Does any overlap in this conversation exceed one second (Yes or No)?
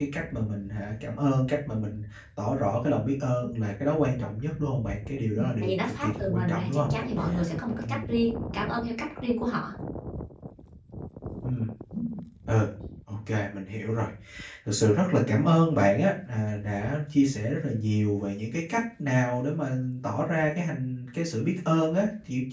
Yes